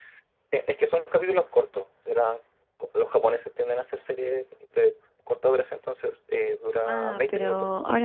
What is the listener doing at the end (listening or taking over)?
taking over